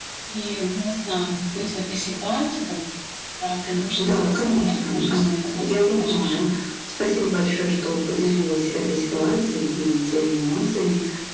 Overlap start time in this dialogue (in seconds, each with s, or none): 4.0 s